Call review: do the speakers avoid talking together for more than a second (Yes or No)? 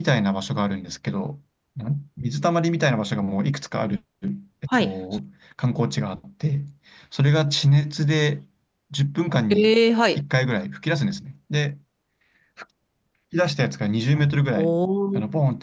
Yes